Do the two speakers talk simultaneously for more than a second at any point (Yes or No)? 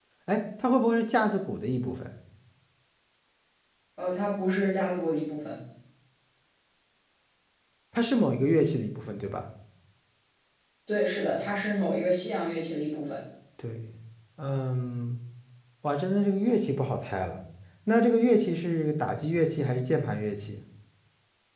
No